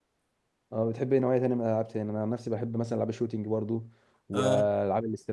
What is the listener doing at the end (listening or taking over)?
listening